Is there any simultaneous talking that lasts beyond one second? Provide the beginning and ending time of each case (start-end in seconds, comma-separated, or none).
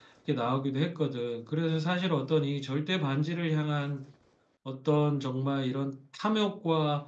none